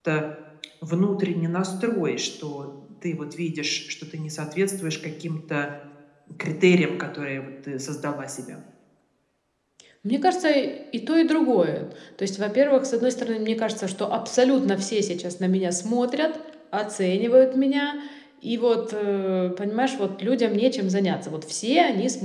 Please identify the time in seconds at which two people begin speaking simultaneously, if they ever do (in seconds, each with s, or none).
none